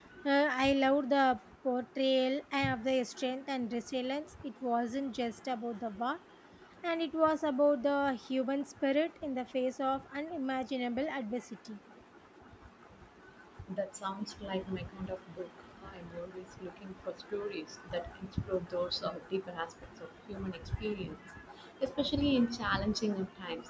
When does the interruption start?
none

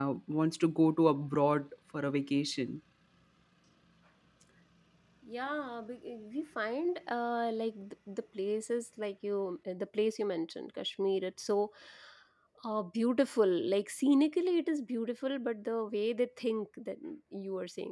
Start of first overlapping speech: none

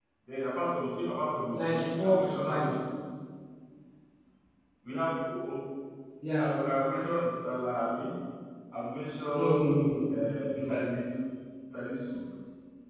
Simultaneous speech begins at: 1.5 s

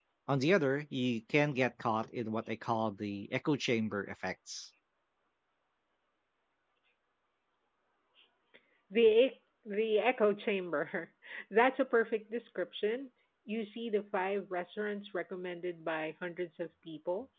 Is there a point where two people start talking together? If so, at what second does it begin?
none

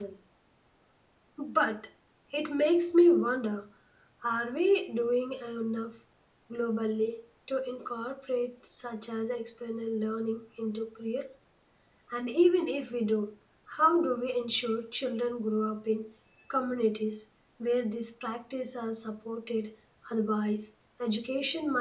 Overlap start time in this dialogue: none

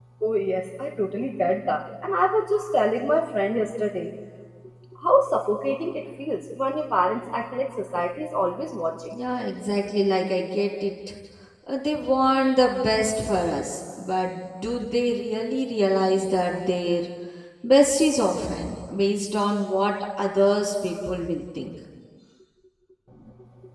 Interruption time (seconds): none

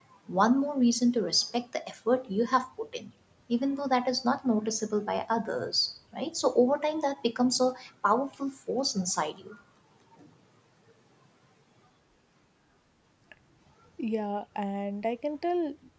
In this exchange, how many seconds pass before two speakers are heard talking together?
none

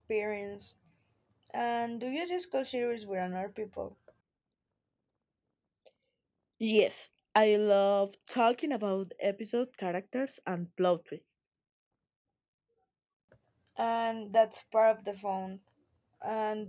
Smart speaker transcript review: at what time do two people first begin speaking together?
none

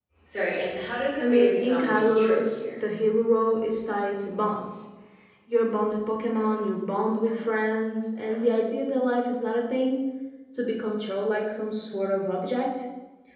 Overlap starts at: 1.2 s

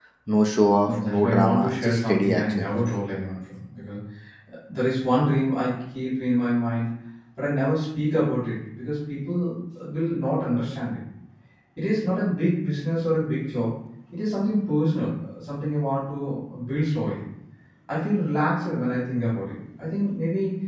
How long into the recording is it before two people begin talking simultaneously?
0.8 s

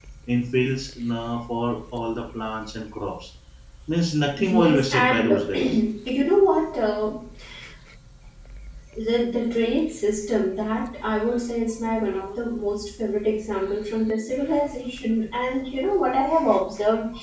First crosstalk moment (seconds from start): 4.4 s

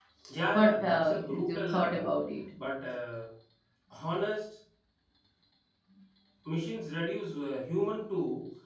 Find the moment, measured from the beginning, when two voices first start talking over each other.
0.5 s

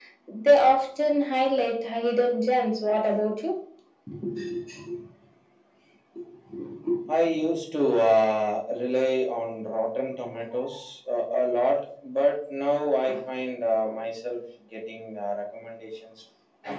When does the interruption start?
none

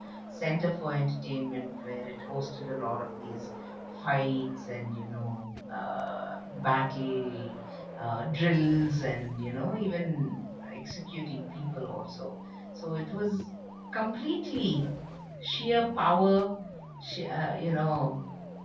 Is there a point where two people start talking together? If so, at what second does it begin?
none

